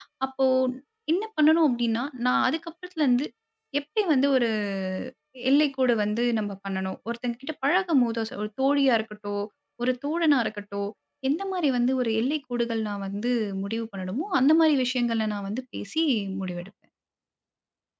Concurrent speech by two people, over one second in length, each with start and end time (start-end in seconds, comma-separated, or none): none